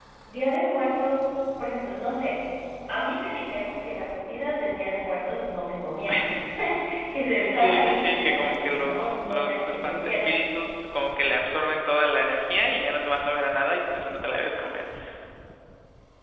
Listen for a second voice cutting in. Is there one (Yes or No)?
Yes